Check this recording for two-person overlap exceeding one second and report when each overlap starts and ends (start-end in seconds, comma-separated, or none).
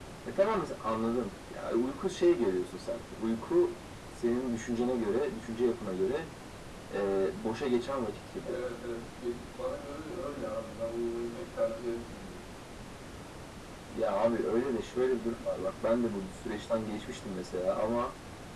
none